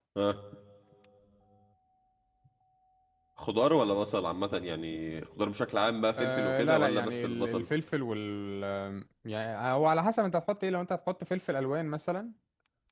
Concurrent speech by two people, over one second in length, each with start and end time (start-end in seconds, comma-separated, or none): 6.2-7.7